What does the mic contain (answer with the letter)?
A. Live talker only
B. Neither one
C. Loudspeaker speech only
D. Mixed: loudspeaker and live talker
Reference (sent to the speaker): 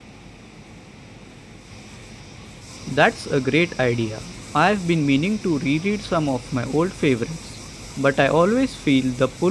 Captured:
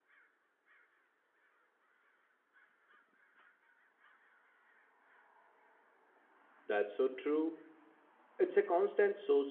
A